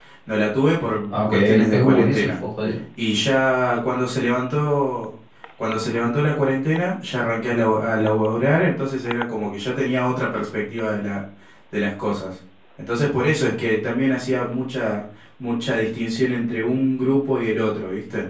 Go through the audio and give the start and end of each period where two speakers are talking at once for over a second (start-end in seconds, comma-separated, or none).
1.1-2.3